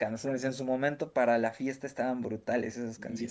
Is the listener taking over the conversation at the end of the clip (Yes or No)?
Yes